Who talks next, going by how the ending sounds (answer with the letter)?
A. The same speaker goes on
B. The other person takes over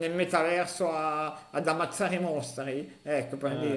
A